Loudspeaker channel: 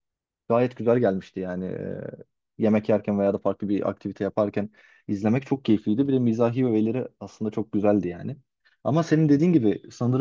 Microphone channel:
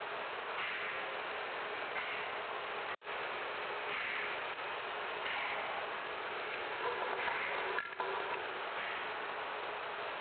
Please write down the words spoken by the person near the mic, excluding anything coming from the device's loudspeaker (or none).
none